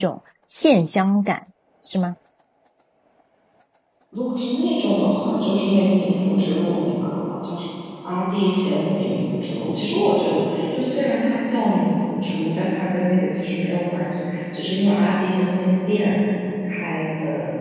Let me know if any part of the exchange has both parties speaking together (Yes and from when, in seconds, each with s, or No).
No